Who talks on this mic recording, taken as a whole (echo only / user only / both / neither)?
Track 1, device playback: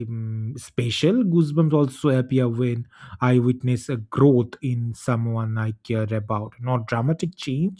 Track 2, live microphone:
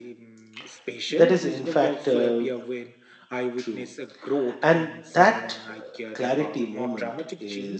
both